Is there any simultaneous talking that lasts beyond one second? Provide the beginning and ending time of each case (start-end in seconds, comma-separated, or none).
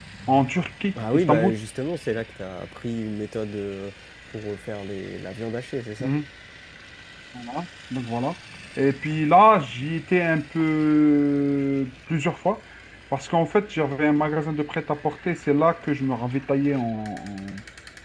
none